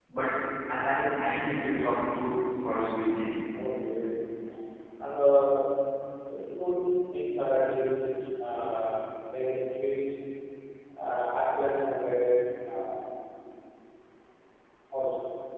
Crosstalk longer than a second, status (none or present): none